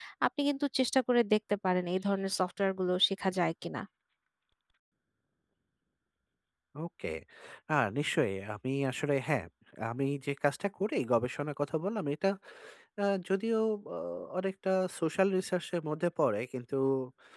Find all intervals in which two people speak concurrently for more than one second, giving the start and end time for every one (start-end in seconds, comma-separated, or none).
none